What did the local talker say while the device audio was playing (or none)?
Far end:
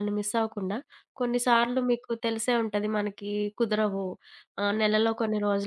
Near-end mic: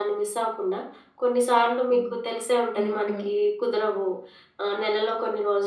హ్మ్. హ్మ్. హ్మ్.